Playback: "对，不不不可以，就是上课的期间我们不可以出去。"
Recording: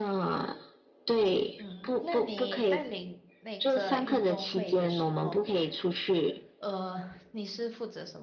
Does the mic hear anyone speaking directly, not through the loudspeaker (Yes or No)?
Yes